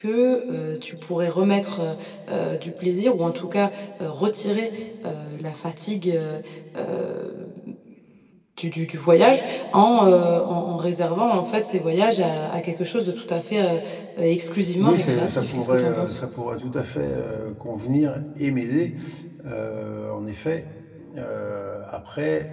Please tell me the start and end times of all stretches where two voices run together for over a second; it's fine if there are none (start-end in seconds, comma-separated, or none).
14.8-16.1